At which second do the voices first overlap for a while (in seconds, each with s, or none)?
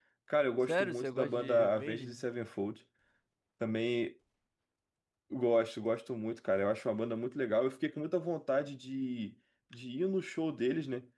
0.7 s